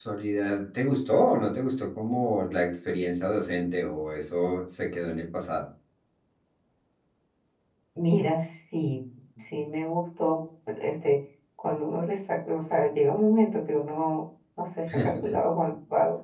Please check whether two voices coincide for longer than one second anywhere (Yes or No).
No